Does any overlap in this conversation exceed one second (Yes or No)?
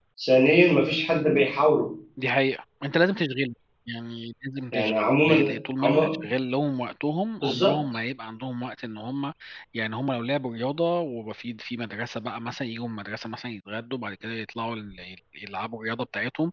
Yes